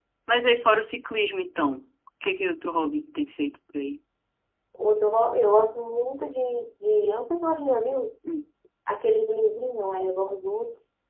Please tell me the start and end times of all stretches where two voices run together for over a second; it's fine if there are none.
none

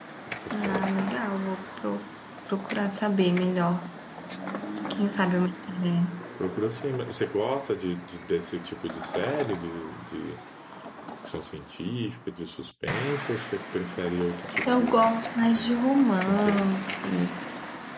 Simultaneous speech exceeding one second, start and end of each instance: none

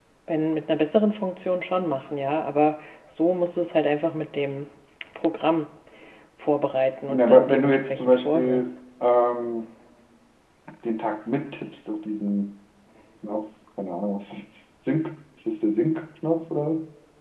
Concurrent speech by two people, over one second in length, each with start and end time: 7.1-8.7

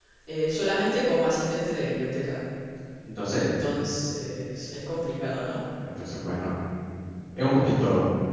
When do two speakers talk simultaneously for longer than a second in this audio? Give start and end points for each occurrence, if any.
none

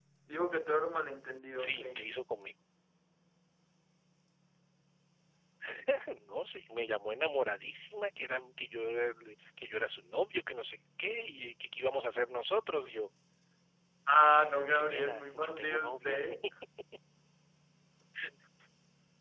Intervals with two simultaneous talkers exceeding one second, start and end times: 14.2-16.2

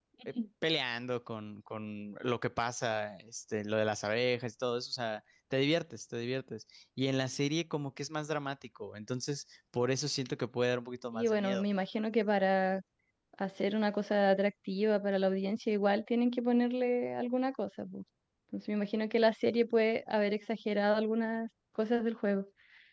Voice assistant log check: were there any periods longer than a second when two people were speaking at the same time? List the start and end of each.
none

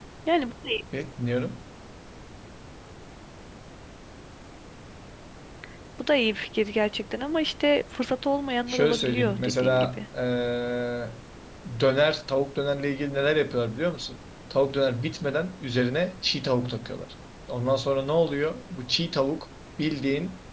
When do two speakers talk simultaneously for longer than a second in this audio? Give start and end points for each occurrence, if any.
8.7-10.1

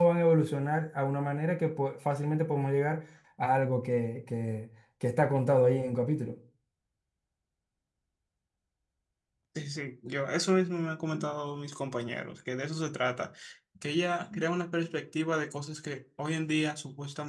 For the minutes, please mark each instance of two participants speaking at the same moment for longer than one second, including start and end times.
none

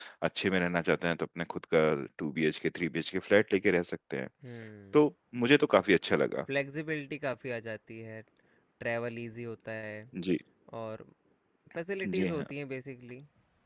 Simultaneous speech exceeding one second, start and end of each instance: none

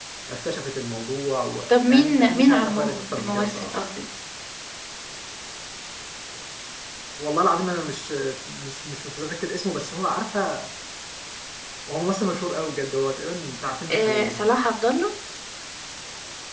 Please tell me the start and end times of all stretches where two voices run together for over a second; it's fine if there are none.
1.7-3.9

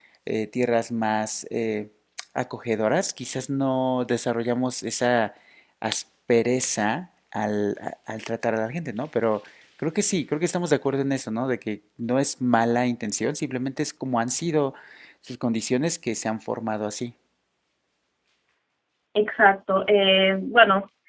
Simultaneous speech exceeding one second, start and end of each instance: none

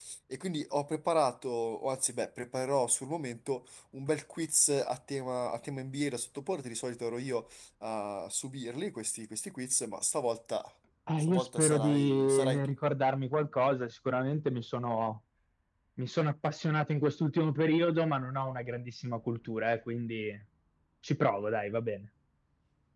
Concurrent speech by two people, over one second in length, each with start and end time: 11.2-12.7

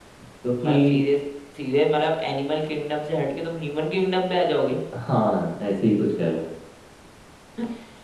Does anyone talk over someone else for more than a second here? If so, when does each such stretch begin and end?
none

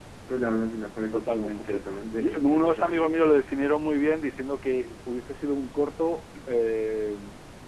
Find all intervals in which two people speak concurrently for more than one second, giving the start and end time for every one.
1.1-3.2

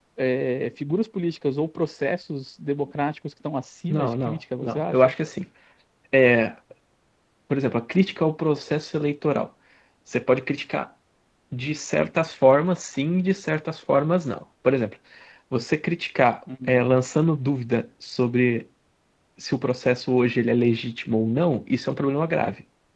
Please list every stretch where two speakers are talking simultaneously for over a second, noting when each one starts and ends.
3.9-5.1

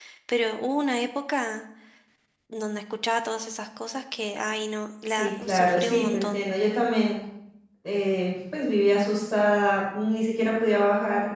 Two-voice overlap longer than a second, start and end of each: 5.1-6.4

